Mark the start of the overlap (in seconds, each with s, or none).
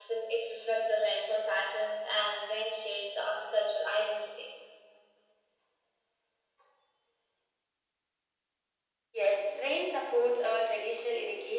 none